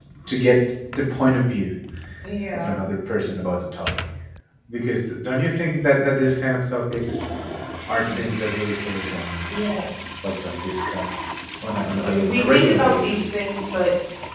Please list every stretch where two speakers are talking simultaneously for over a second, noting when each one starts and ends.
11.9-13.2

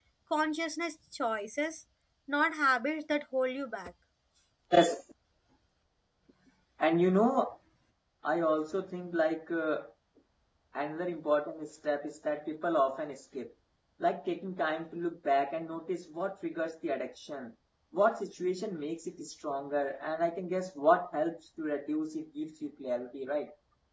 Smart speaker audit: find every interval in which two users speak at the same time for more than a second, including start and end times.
none

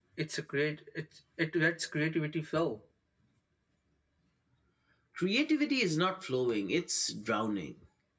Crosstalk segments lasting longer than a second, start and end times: none

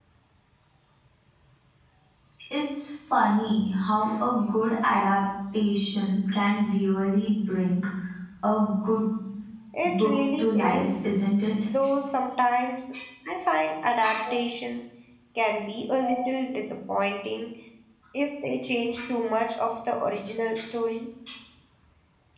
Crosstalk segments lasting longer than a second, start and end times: 9.8-11.1

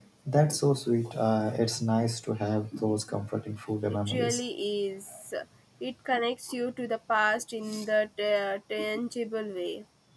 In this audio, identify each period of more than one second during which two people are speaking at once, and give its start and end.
none

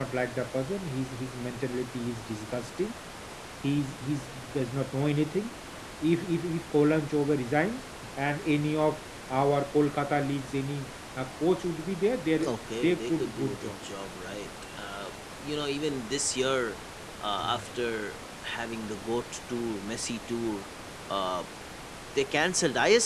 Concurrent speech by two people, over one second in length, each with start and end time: 12.4-13.8

